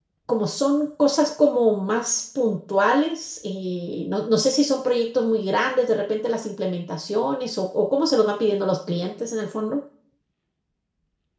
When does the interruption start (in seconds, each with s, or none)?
none